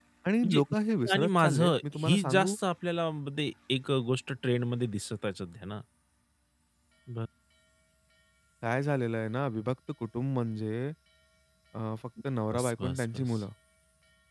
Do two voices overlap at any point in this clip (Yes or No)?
Yes